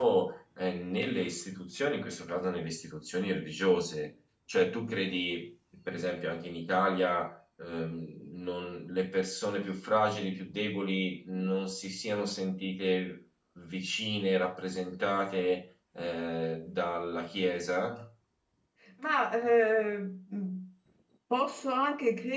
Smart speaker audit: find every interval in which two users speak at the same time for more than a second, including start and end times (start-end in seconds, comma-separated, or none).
none